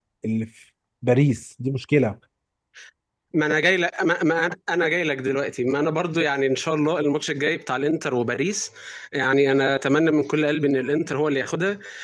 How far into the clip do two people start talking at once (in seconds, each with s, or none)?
none